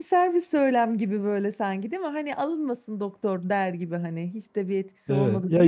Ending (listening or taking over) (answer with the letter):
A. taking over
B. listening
A